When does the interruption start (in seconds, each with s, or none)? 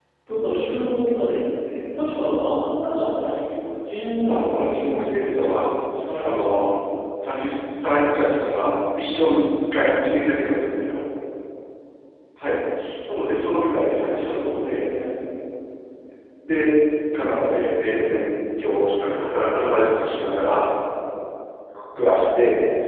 4.3 s